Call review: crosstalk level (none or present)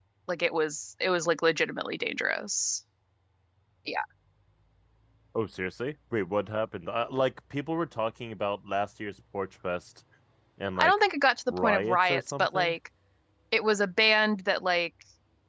present